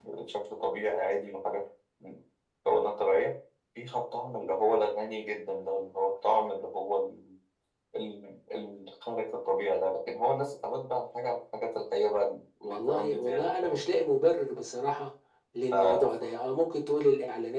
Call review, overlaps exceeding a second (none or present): present